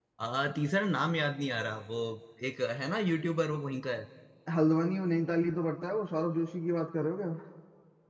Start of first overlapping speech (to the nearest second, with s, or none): none